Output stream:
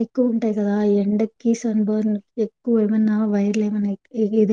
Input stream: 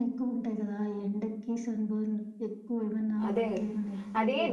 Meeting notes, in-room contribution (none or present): present